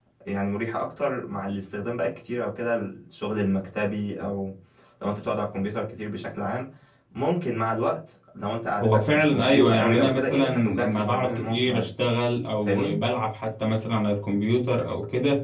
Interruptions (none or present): present